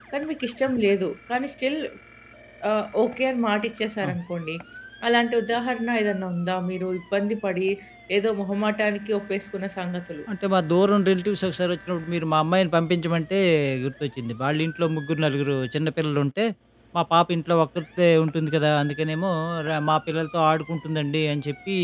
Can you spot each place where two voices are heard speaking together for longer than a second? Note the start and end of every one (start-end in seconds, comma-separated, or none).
none